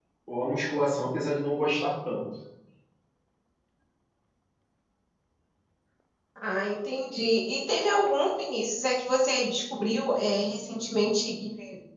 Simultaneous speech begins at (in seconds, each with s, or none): none